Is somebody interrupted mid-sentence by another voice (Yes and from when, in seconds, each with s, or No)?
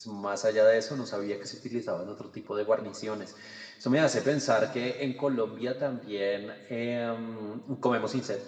No